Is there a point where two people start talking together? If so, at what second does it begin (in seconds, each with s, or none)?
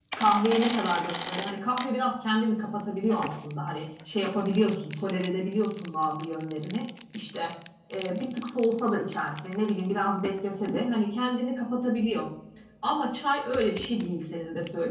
none